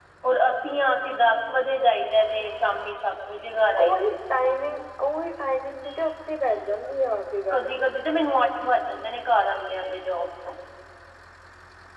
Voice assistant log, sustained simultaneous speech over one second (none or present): none